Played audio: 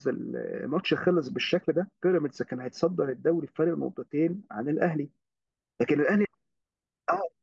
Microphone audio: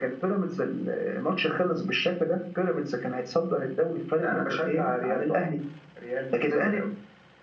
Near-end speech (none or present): present